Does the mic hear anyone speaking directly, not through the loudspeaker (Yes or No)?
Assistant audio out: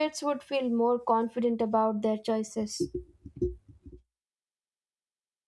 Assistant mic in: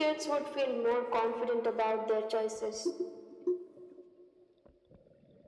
No